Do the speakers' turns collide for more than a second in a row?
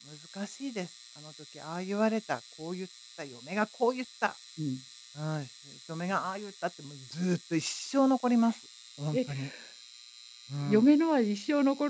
No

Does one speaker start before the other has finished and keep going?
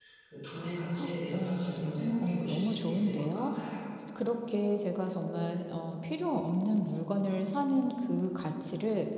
Yes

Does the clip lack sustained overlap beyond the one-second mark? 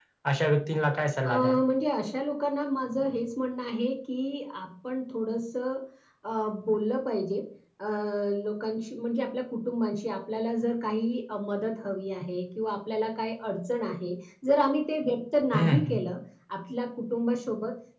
Yes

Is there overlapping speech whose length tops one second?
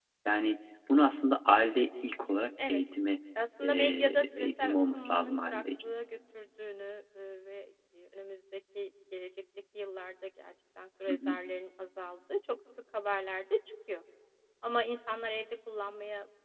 Yes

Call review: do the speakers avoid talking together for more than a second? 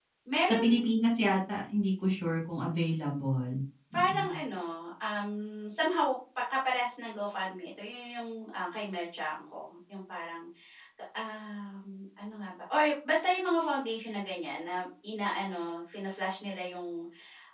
Yes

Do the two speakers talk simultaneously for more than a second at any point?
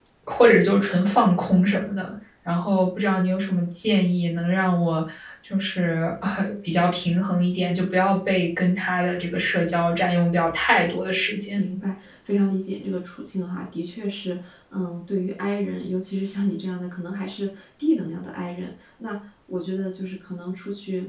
No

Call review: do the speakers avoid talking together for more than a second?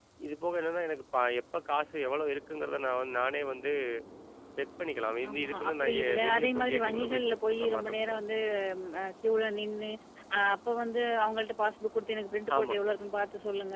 No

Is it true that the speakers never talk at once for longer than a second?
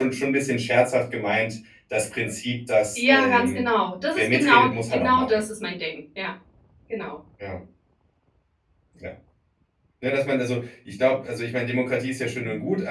No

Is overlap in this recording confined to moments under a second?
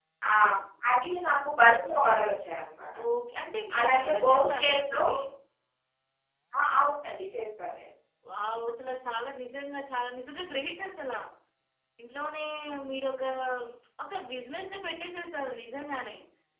No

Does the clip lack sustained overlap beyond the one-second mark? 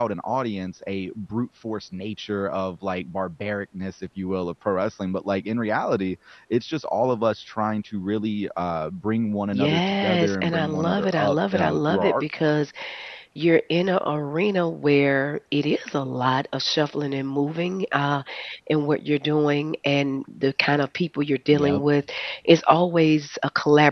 No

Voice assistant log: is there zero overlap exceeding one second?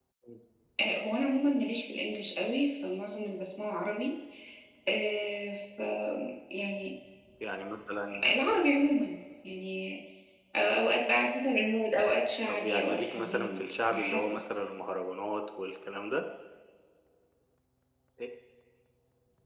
No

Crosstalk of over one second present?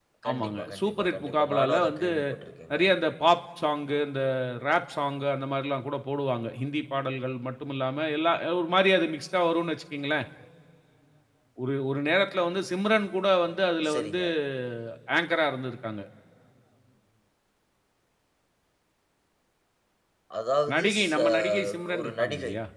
Yes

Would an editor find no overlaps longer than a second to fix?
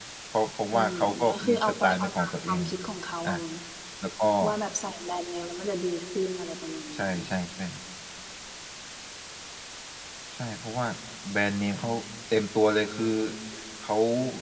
No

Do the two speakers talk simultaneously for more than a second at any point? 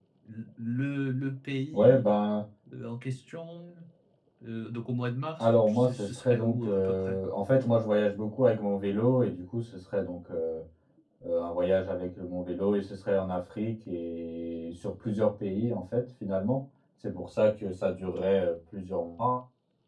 Yes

